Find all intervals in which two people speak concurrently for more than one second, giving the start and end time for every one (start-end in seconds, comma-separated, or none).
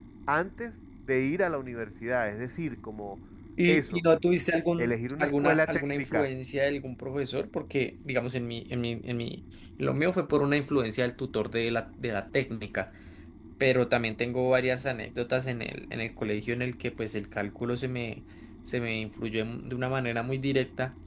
4.8-6.3